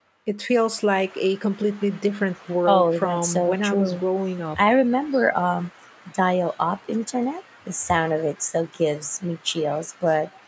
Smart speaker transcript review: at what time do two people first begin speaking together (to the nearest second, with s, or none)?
3 s